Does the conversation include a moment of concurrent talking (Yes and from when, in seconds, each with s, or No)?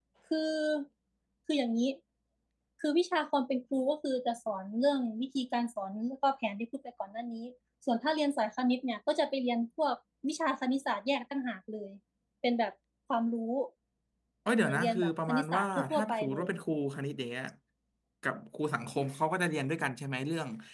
Yes, from 14.6 s